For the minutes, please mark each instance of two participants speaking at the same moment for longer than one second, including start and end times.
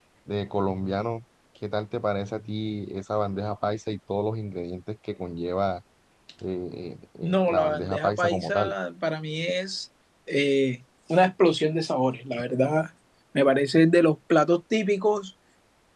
7.2-8.7

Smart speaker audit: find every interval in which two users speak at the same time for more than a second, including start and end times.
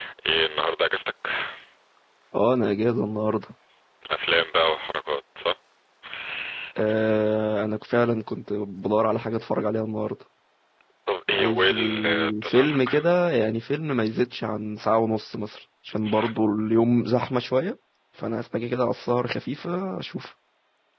11.3-12.9

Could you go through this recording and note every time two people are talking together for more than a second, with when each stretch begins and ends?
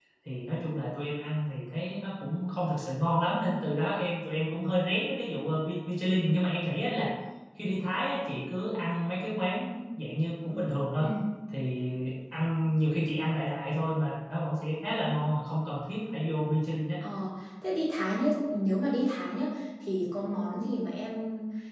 none

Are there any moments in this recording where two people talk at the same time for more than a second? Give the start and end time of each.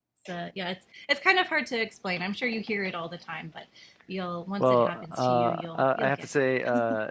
4.6-6.3

